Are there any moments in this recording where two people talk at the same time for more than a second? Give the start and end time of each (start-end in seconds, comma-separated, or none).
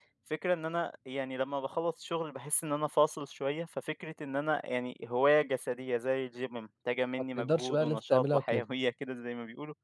7.4-8.7